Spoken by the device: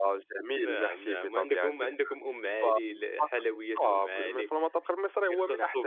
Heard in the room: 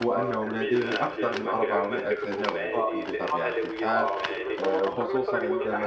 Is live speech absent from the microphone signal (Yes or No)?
No